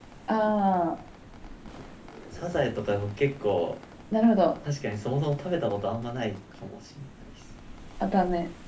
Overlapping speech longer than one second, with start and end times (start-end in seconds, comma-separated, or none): none